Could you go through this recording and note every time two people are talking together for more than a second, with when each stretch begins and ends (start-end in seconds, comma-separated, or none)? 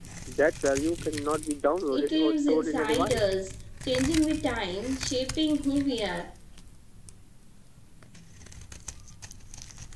1.9-3.3